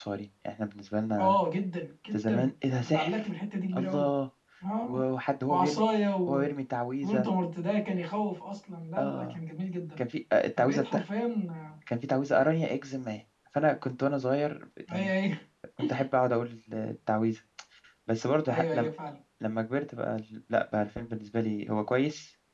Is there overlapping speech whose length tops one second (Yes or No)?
No